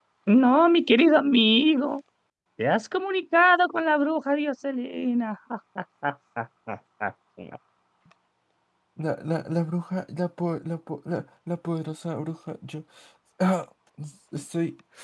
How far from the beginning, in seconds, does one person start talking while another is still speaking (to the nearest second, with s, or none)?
none